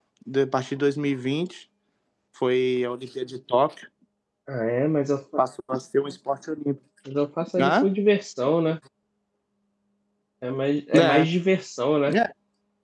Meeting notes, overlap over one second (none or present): none